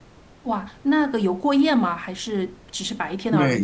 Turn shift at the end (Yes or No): Yes